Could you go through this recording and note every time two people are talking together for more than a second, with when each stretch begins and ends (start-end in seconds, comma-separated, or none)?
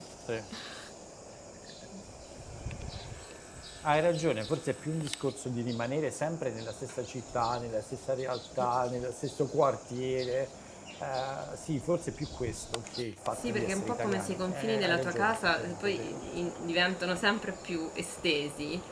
13.3-16.5